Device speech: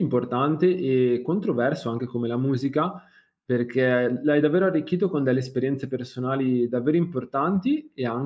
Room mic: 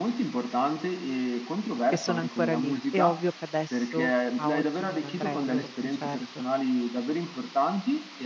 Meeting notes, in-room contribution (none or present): present